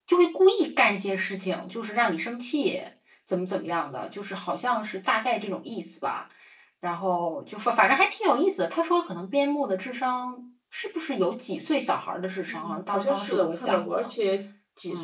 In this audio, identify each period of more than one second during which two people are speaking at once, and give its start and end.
12.5-14.1

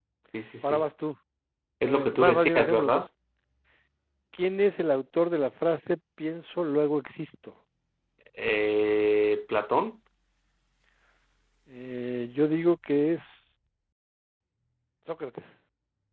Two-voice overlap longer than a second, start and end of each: 1.8-3.1

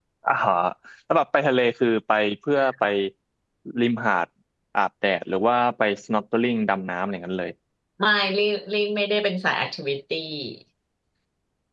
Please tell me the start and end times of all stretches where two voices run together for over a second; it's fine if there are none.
none

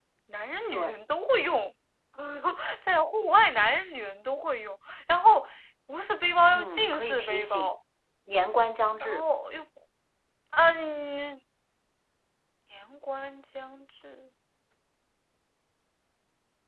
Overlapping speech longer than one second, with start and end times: 6.5-7.7

